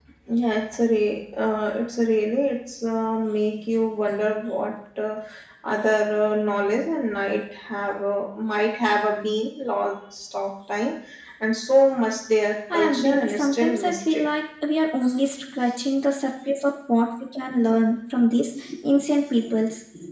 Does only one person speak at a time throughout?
No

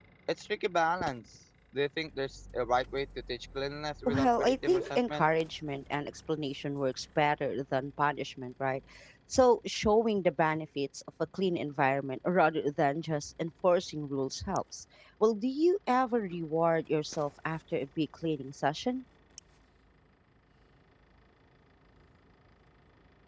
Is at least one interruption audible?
Yes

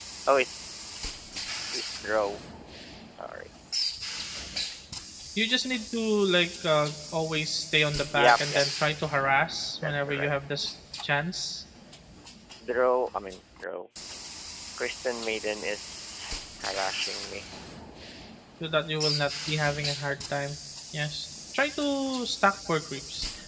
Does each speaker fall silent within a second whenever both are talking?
Yes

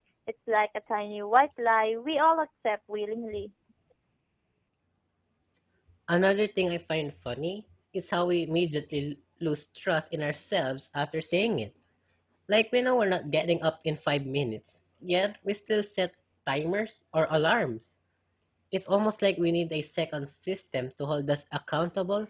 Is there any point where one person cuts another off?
No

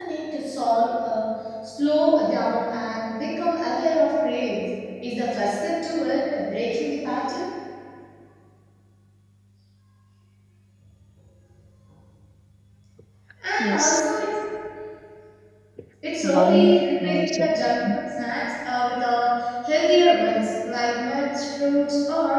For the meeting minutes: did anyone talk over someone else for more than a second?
Yes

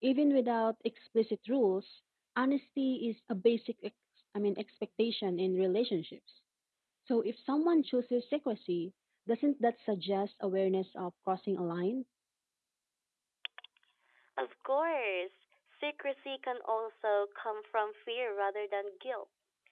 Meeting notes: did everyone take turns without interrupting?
Yes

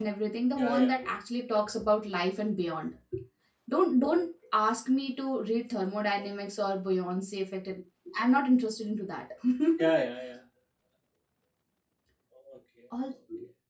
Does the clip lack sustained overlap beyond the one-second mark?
Yes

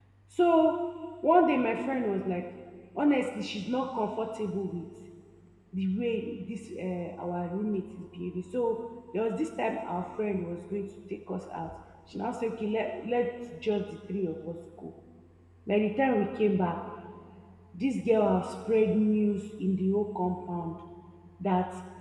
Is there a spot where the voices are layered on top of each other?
No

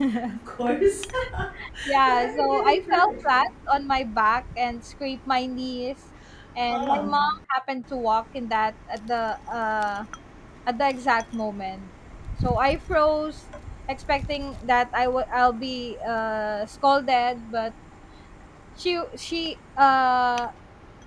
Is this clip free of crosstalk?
No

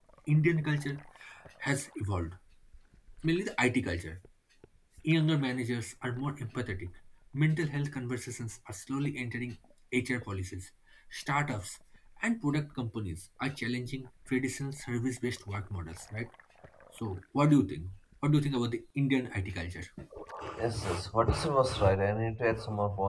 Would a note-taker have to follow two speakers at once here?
No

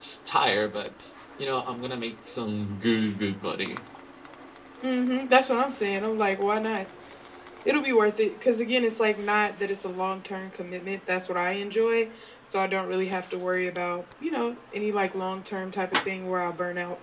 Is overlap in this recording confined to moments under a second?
Yes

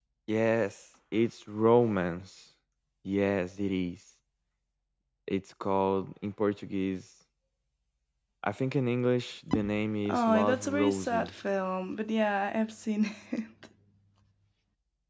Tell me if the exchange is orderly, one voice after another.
No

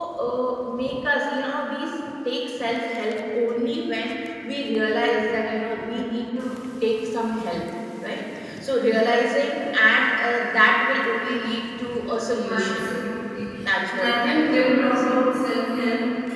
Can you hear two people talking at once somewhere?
Yes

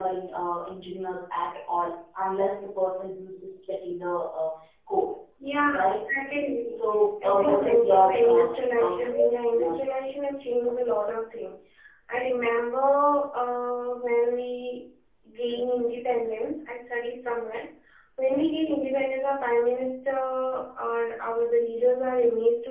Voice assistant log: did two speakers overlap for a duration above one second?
Yes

